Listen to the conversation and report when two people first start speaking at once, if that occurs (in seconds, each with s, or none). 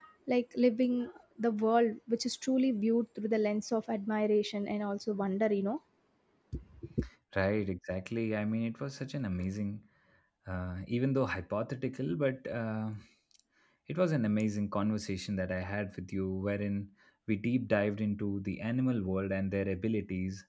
none